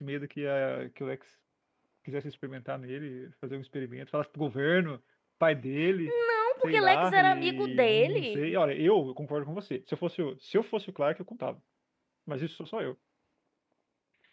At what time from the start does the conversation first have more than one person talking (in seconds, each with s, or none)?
6.6 s